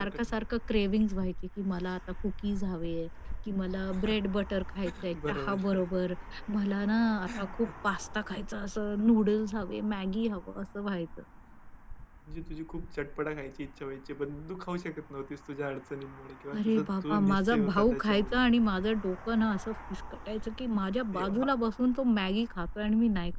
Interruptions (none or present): present